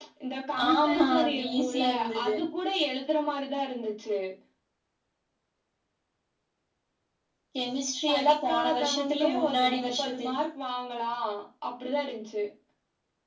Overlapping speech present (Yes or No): Yes